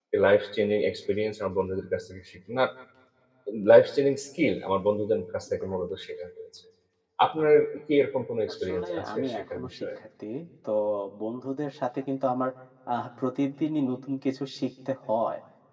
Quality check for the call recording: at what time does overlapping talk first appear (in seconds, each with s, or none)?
8.5 s